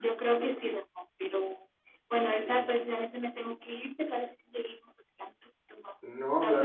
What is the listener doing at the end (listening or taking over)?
taking over